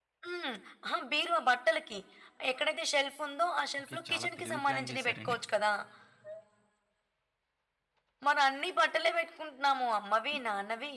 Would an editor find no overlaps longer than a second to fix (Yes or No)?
No